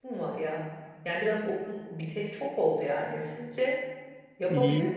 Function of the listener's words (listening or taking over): taking over